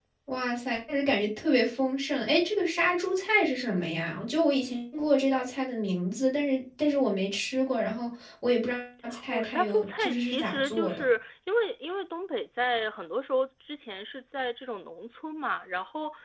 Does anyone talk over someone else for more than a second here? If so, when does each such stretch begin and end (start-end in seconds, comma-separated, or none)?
9.3-11.0